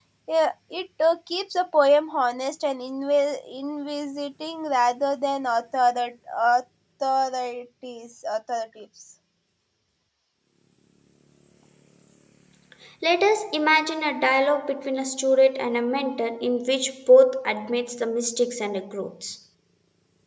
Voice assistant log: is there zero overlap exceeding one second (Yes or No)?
Yes